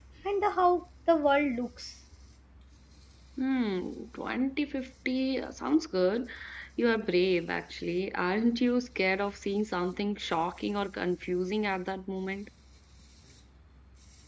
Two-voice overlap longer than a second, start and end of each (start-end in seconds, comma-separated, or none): none